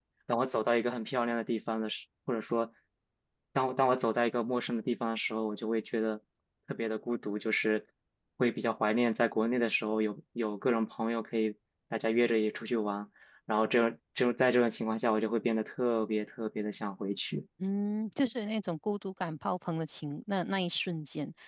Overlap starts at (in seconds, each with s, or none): none